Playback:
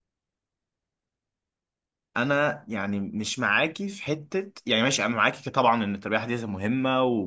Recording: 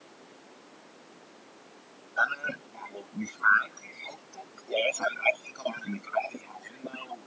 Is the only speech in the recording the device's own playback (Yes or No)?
Yes